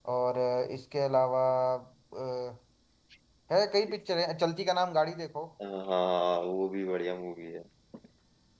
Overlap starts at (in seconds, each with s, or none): none